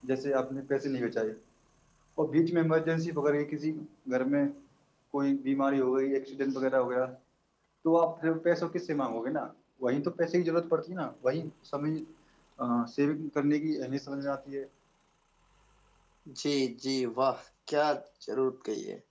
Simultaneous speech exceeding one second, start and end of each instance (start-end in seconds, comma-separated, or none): none